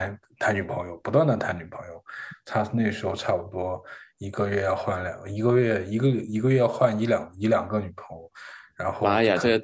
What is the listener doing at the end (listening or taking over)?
taking over